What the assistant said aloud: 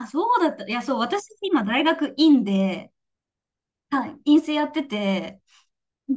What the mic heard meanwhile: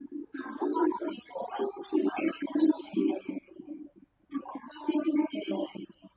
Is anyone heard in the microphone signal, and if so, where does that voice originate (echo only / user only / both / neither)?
echo only